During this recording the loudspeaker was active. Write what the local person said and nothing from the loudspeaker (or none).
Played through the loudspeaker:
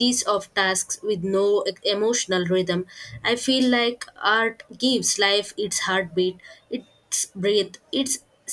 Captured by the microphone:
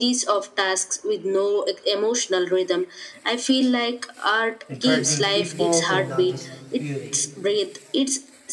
encouraging people to notice beauty,